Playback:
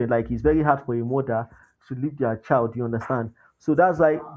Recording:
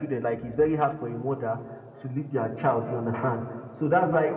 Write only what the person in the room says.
none

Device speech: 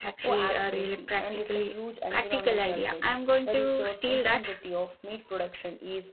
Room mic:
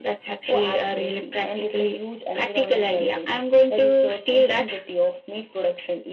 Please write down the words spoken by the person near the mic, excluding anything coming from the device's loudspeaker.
none

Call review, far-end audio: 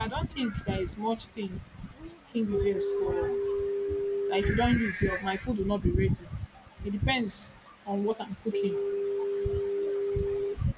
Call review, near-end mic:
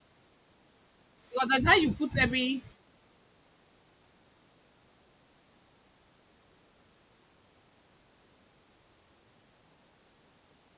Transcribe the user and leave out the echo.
Because that's how you put every

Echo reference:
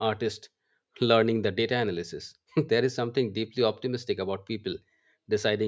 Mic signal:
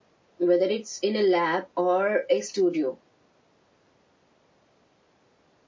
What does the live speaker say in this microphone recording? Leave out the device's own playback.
whether it's in a lab or a studio,

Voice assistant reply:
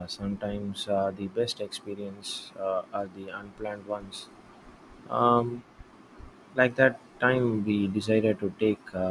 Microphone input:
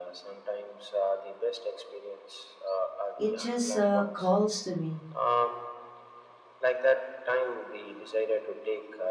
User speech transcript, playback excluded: It just uh, calls to me.

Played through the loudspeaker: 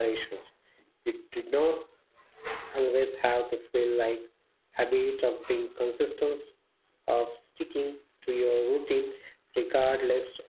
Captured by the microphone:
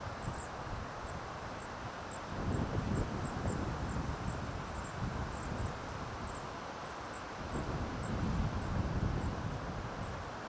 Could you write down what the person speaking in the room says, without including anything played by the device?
none

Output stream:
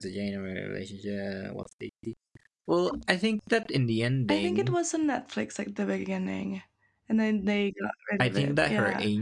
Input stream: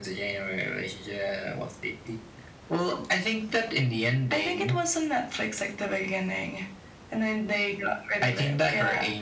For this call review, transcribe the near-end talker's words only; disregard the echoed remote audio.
none

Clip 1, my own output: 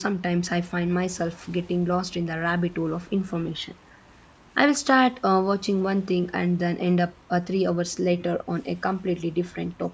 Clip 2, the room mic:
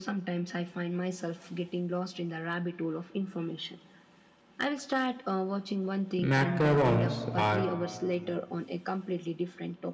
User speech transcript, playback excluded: Macarons are

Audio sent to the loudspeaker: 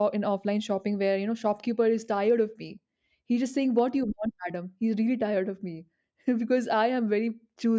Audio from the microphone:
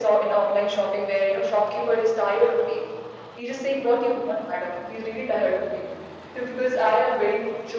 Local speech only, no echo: none

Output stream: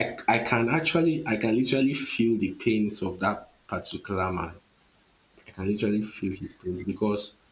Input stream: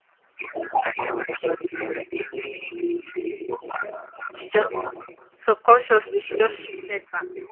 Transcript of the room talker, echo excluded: she just subconsciously she just shifted back

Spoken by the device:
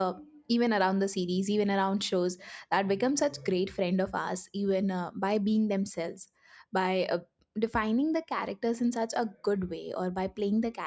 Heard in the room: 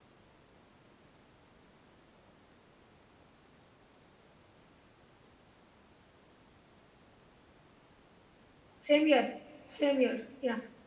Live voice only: Same year, Same year, Yeah.

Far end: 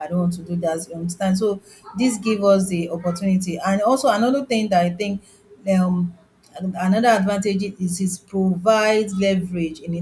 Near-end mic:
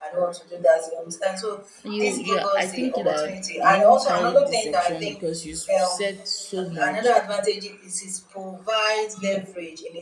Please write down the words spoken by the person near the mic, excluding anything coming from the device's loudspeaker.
You, yeah, I think that you even carried this section because you s- said so much,

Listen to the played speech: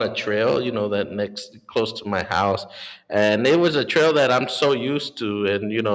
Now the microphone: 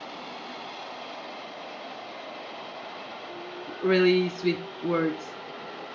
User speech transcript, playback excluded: really sweet words.

